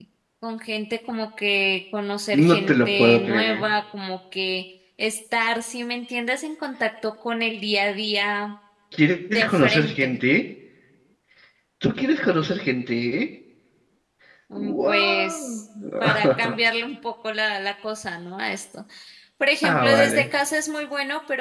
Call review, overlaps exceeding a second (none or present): present